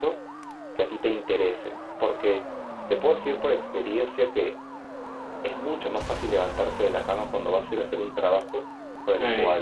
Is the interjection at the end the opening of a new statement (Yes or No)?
No